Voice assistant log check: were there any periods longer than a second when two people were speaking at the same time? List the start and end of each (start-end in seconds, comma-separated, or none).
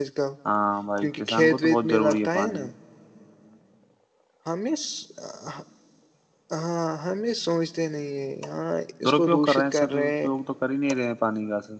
1.0-2.6, 9.0-10.3